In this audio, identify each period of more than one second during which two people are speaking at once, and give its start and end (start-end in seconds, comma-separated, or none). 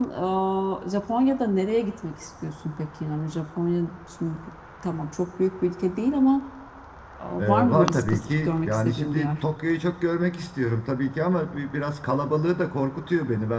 7.4-9.3